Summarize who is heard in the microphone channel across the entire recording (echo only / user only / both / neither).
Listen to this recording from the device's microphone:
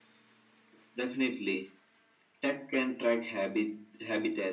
echo only